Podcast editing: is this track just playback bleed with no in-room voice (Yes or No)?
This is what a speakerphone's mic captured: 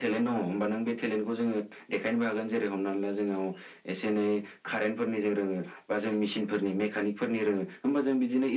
Yes